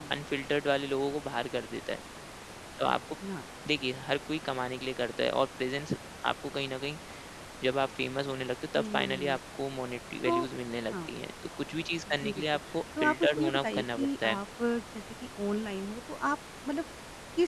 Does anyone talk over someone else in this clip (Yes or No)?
Yes